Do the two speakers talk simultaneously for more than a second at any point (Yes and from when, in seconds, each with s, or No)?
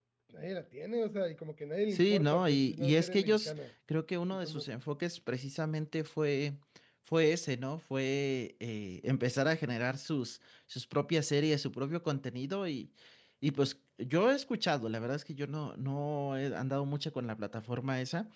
Yes, from 1.9 s